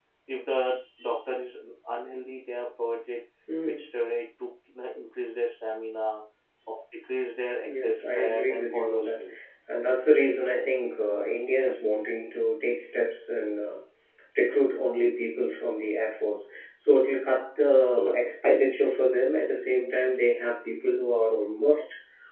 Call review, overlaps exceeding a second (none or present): present